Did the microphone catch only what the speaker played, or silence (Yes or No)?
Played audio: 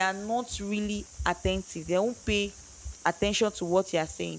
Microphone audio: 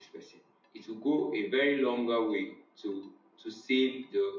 No